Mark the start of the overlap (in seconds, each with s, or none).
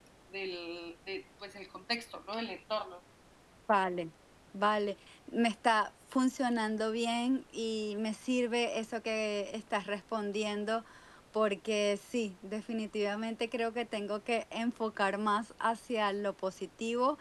none